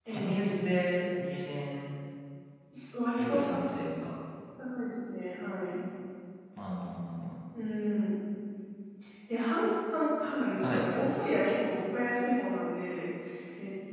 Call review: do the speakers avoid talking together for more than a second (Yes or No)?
Yes